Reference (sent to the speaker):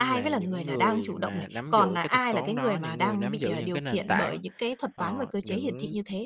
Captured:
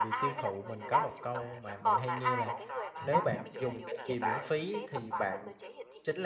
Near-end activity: present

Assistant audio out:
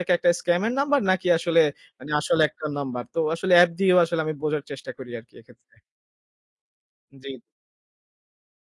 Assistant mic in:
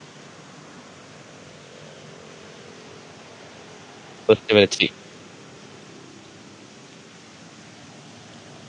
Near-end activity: present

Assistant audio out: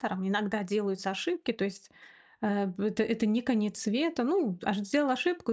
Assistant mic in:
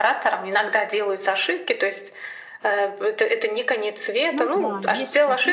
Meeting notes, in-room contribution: present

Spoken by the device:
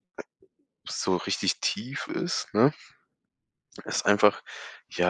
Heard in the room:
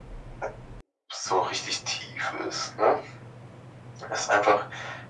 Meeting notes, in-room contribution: none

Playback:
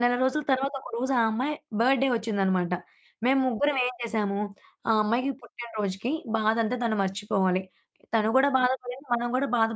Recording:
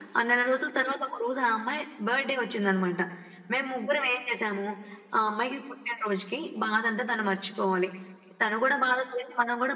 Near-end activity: none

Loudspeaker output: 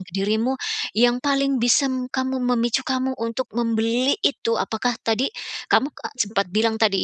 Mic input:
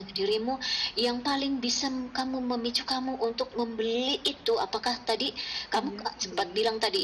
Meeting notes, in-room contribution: present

